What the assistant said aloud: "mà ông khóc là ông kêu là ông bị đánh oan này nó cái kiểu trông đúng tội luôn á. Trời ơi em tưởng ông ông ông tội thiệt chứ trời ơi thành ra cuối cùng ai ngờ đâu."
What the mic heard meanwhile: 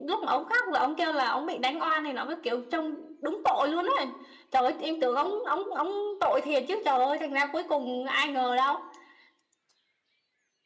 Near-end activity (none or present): none